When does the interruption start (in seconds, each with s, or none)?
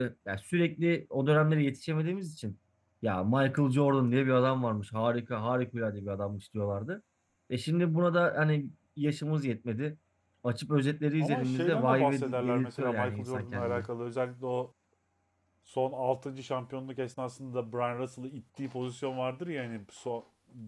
11.2 s